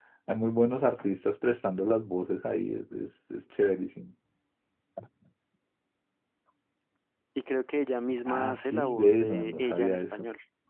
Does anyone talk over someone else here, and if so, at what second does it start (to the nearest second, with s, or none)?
8 s